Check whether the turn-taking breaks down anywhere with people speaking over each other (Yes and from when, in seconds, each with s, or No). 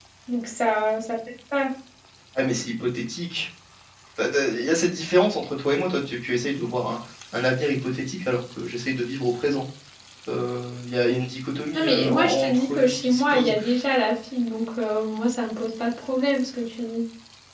Yes, from 11.7 s